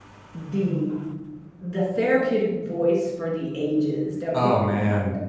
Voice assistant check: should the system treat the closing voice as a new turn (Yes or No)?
Yes